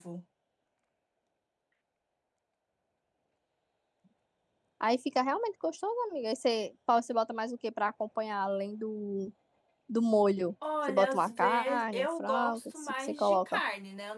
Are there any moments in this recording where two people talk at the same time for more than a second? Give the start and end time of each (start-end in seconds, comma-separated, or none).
10.9-13.6